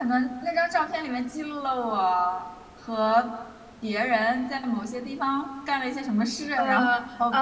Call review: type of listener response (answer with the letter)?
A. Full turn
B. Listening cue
A